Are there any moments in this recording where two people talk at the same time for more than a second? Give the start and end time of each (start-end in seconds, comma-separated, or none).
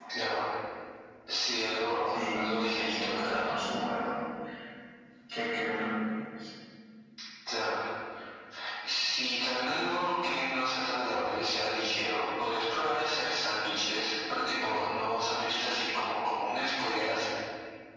2.1-3.5